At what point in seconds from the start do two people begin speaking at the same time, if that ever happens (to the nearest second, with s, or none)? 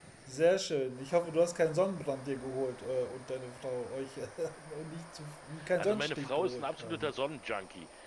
6 s